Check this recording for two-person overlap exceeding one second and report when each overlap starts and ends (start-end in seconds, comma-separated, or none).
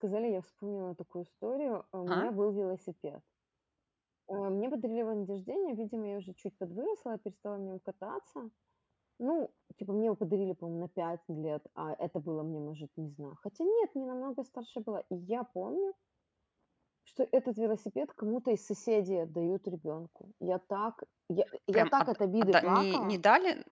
21.7-23.2